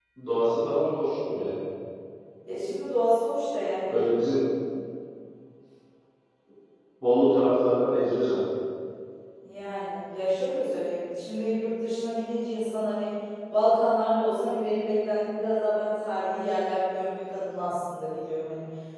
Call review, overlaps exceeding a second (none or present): none